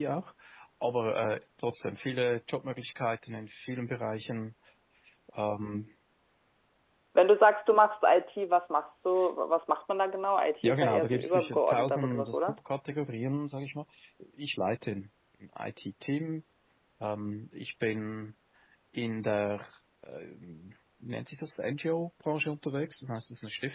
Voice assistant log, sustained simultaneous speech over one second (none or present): present